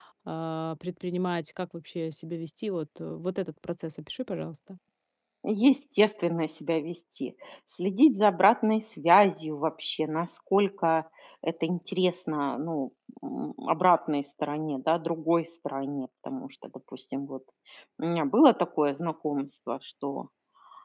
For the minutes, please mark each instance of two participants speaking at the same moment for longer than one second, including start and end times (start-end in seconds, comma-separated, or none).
none